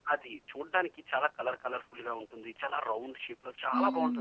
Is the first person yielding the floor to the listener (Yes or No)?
Yes